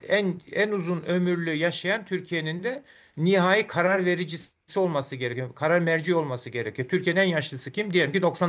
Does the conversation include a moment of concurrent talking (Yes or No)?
No